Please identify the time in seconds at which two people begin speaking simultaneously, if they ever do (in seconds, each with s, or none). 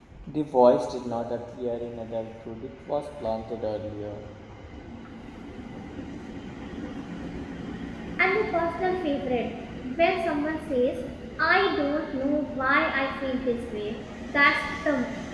none